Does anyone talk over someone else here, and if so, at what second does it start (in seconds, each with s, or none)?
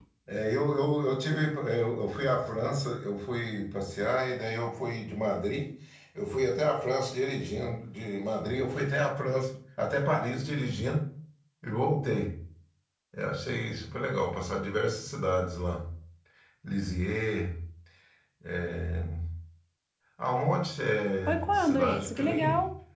21.3 s